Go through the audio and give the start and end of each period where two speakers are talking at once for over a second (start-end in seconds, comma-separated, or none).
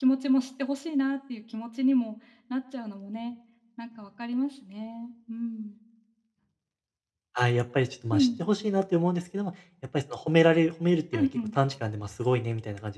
none